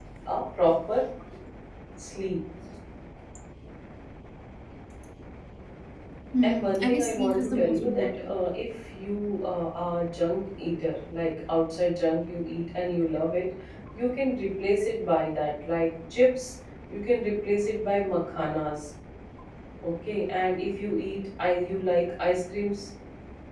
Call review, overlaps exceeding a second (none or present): present